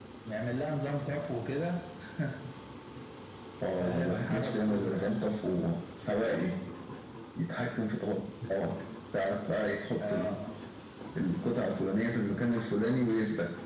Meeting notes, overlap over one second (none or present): present